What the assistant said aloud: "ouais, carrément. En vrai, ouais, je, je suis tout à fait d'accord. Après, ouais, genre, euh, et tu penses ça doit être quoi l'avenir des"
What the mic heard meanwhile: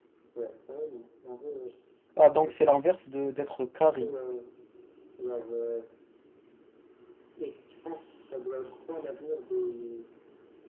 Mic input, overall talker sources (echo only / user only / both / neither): both